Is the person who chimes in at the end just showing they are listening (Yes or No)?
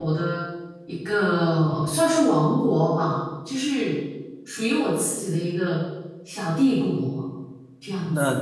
No